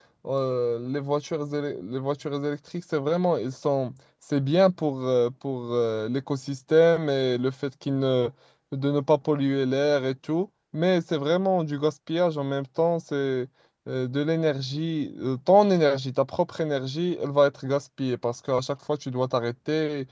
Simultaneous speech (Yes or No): No